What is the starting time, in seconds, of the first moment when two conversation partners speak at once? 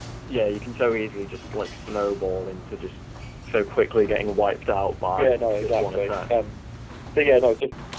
5.1 s

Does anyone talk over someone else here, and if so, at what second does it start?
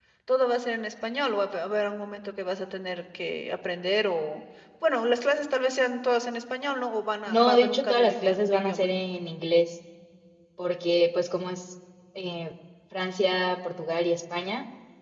7.3 s

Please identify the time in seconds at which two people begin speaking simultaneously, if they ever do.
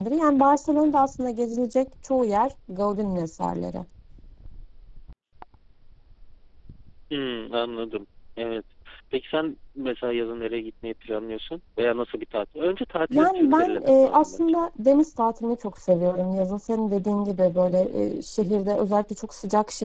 13.1 s

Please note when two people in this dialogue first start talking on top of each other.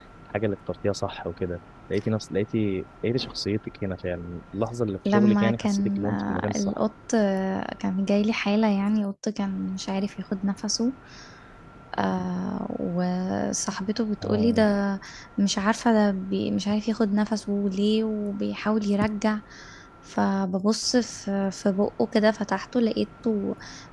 5.0 s

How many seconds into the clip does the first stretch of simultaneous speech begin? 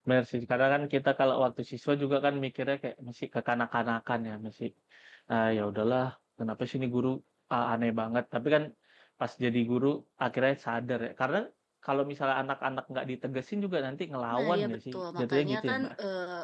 14.3 s

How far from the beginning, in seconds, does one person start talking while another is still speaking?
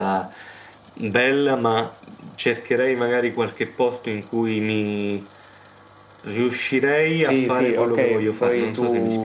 7.2 s

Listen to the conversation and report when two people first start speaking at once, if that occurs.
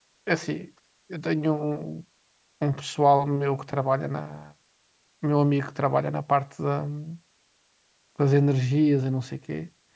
none

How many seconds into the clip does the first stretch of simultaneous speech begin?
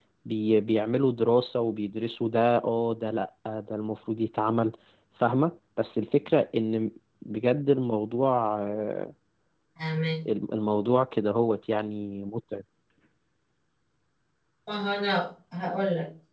none

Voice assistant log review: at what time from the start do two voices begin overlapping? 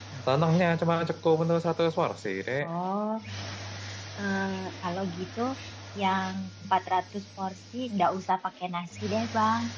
none

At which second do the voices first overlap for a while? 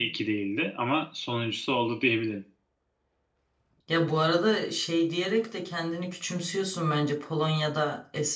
none

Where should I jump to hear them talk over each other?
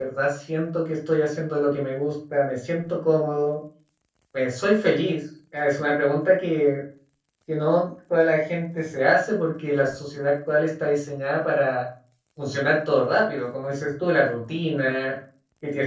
none

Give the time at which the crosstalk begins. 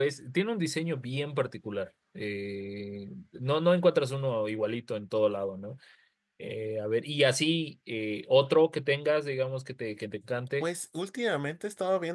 none

